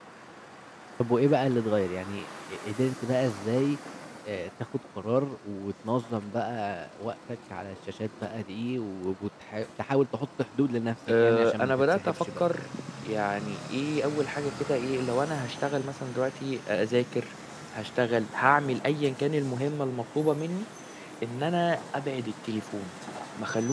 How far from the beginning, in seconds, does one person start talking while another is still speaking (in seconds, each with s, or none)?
11.1 s